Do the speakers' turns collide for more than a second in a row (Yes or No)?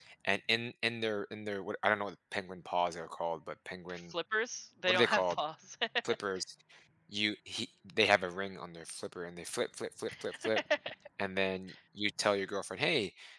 No